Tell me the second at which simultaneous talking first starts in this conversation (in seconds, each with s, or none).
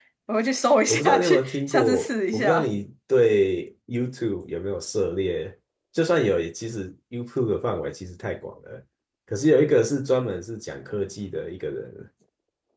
0.9 s